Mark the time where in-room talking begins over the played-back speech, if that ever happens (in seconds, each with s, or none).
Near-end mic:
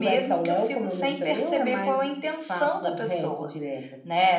none